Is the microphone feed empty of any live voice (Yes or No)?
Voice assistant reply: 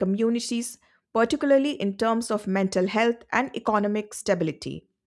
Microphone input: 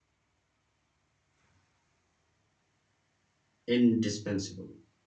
No